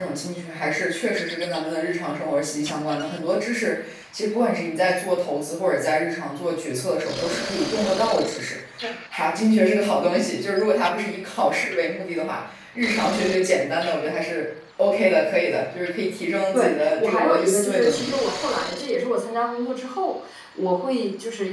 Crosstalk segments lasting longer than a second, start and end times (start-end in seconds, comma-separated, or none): 16.5-18.1